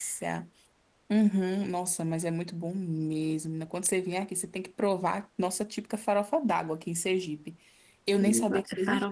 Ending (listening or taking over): taking over